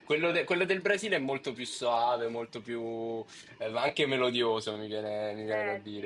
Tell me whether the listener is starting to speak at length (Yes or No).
Yes